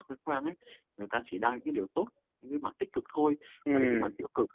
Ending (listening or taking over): listening